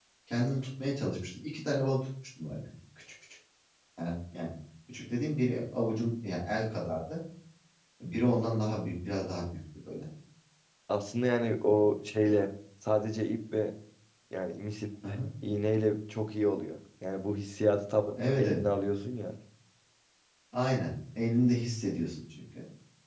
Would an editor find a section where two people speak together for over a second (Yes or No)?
No